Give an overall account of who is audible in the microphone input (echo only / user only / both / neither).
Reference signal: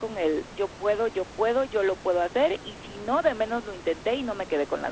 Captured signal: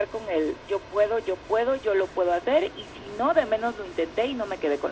echo only